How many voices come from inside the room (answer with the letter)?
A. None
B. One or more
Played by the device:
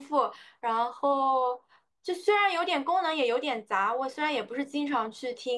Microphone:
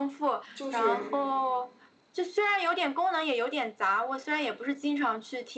B